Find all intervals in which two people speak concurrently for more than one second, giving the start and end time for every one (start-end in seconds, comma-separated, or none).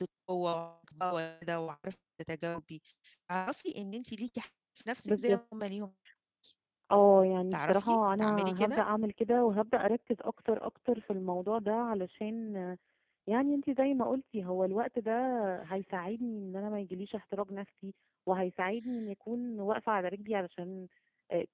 7.5-8.8